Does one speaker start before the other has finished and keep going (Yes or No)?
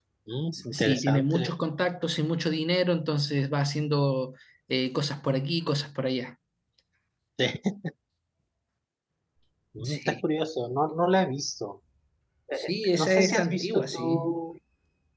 Yes